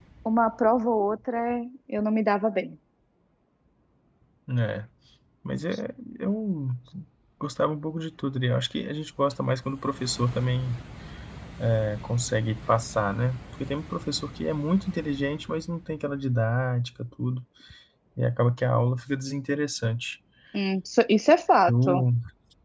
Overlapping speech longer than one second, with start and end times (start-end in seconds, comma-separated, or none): none